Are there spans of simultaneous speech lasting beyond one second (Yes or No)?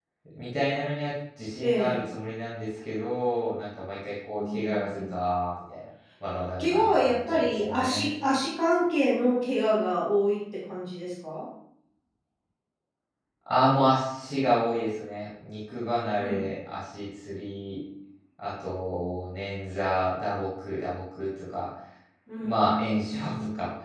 Yes